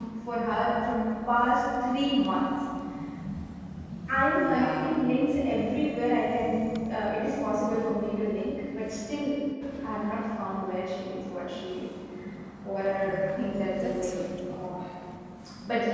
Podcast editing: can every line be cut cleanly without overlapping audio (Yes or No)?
No